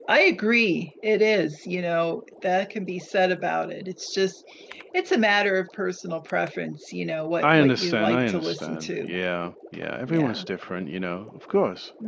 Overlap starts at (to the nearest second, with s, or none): 7 s